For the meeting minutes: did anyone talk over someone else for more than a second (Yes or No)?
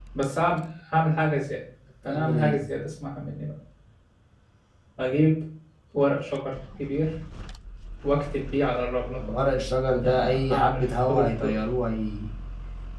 Yes